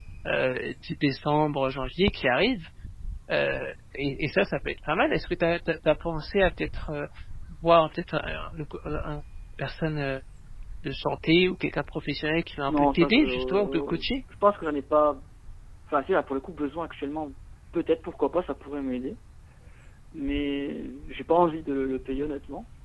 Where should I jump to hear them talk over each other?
12.7 s

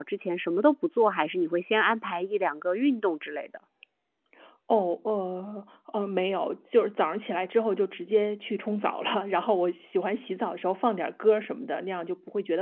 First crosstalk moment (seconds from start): none

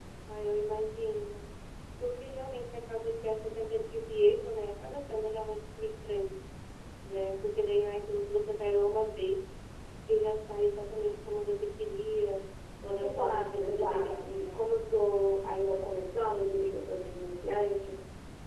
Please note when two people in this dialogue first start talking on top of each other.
13.0 s

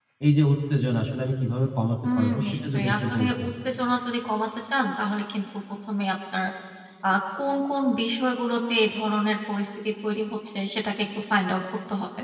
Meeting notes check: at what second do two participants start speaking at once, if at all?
2.0 s

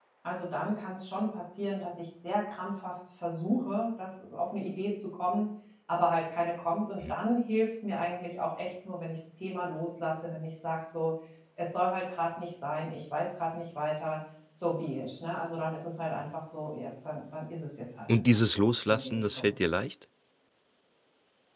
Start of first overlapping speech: 18.1 s

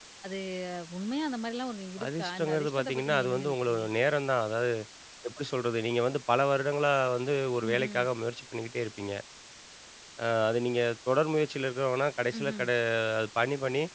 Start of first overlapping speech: 2.0 s

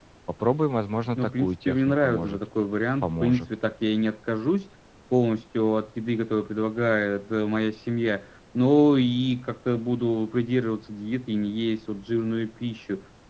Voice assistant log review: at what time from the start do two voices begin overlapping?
1.2 s

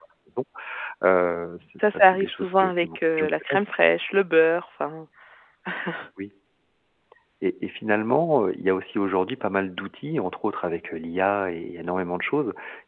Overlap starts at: 1.8 s

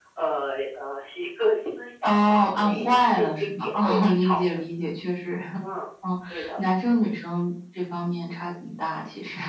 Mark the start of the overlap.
2.0 s

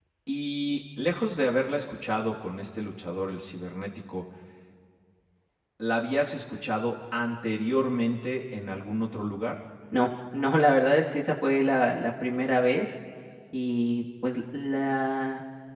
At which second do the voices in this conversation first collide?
none

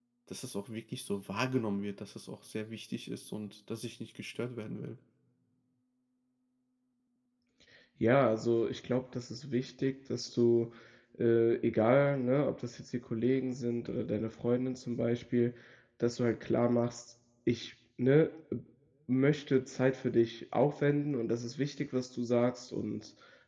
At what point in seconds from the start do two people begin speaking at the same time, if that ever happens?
none

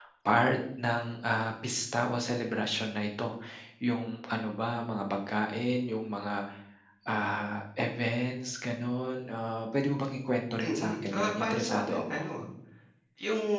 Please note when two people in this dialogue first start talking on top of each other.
10.6 s

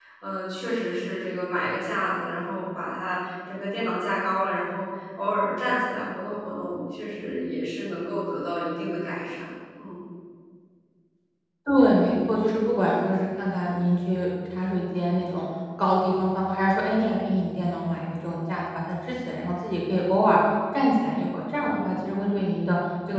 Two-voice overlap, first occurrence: none

